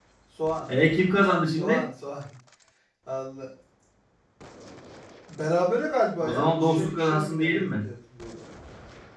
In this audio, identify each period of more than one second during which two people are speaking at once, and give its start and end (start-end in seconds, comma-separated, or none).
6.2-7.7